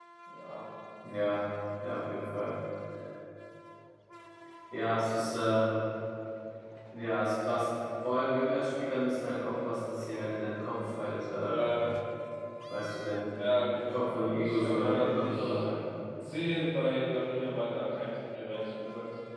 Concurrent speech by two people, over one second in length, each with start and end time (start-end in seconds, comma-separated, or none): 13.9-15.6